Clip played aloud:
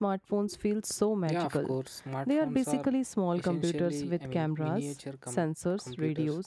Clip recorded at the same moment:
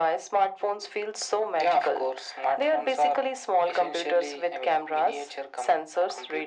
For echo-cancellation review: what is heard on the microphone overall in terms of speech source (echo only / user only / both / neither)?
echo only